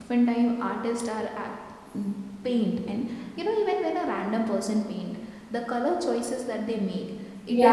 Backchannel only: Yes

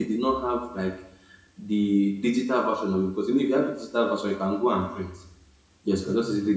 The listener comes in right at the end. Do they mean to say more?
No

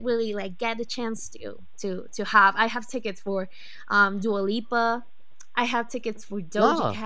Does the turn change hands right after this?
No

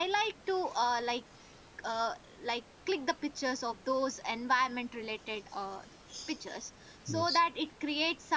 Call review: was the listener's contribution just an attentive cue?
Yes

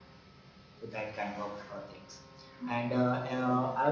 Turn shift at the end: No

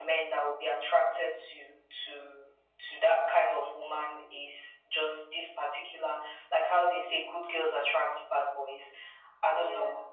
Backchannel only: Yes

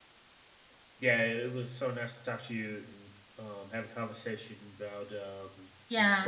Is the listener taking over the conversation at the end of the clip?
Yes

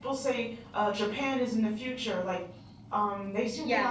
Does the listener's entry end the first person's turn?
No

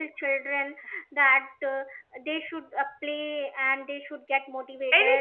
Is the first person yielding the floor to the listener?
No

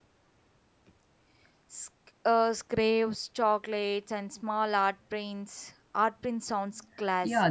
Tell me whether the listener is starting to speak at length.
Yes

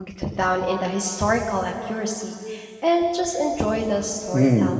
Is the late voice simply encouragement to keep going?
No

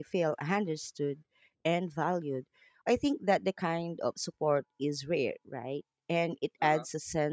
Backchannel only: Yes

